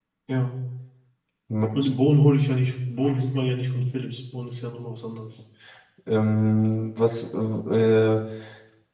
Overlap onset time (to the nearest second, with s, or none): none